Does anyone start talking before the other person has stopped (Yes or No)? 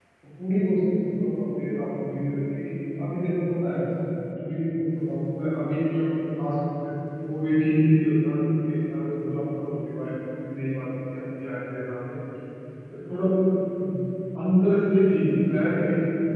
No